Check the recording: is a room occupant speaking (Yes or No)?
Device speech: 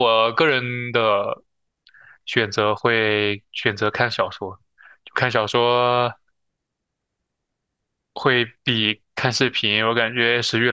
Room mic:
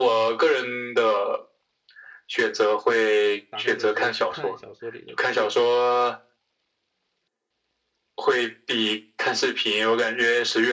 Yes